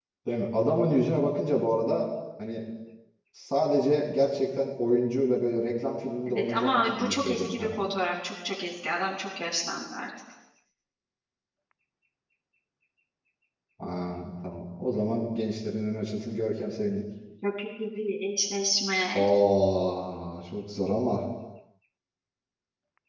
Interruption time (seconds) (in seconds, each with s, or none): 6.2 s